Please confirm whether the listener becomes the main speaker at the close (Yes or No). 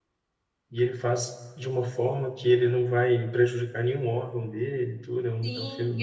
Yes